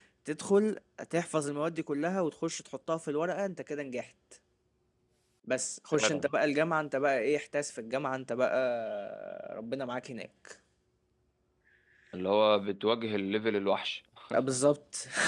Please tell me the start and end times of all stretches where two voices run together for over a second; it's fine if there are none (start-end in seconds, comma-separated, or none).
none